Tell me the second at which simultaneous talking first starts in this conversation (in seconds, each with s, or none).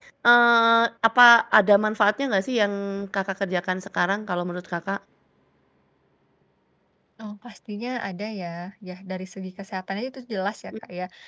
none